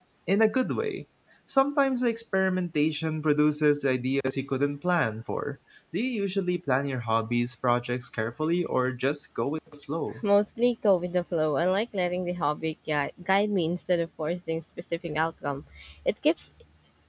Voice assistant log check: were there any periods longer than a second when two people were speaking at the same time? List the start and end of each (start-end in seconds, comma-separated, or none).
none